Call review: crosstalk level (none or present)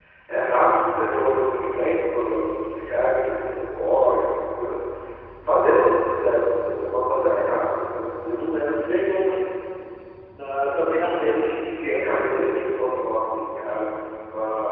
present